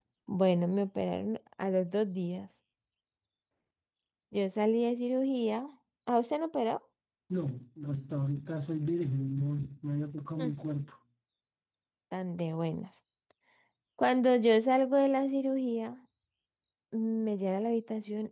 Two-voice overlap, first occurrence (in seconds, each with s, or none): none